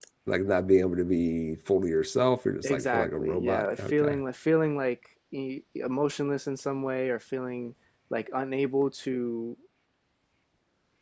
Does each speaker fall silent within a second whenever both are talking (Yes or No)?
No